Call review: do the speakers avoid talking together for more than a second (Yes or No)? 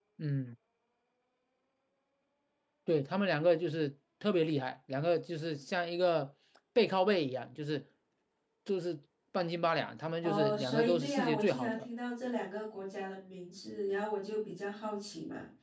No